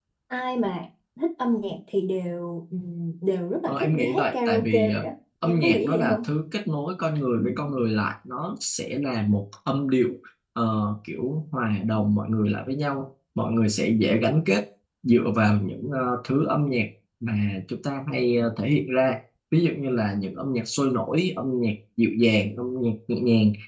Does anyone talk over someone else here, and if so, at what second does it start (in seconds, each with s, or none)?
3.7 s